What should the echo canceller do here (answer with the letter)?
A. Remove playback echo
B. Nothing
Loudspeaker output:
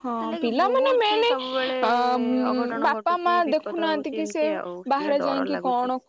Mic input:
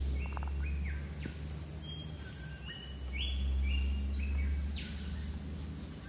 B